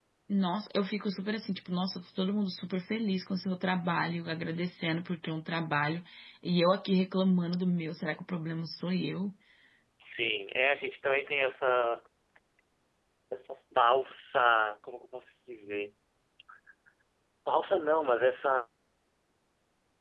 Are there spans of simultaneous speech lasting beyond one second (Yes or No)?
No